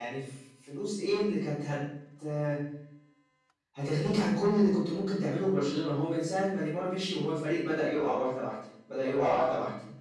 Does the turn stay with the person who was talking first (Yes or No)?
Yes